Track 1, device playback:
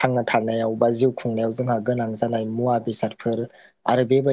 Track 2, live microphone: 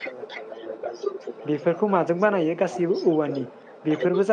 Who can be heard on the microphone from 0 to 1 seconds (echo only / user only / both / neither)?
echo only